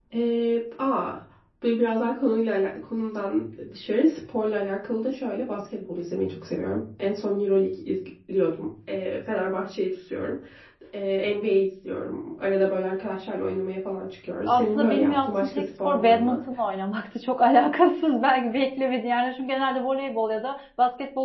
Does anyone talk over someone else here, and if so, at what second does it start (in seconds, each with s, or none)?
14.5 s